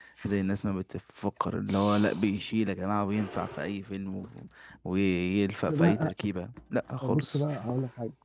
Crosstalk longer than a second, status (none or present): none